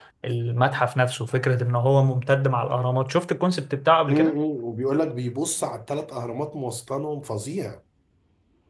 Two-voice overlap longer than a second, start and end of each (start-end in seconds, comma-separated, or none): none